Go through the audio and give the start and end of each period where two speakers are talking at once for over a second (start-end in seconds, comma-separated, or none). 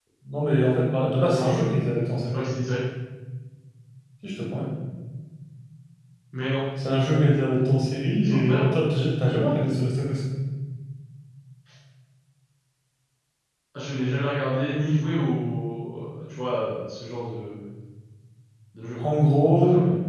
none